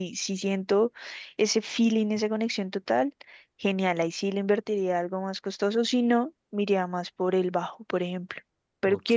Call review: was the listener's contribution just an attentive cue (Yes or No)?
Yes